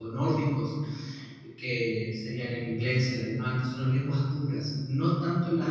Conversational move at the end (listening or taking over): listening